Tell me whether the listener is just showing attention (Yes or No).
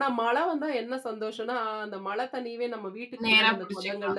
Yes